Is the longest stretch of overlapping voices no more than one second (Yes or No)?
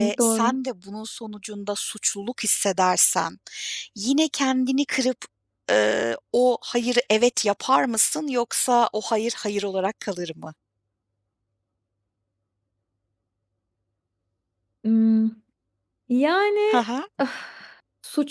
Yes